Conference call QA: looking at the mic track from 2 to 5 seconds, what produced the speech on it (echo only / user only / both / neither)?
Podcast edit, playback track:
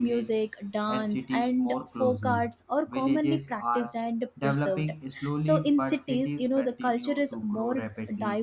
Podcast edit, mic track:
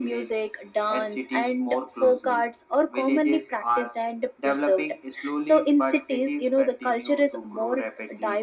echo only